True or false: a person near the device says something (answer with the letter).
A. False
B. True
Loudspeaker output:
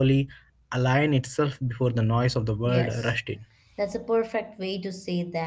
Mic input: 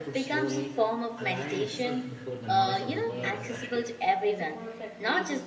B